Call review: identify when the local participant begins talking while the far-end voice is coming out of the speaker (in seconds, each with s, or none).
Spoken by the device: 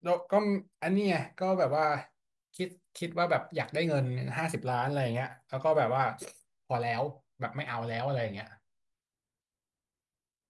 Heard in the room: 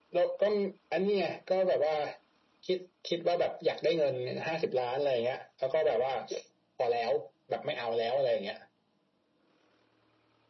none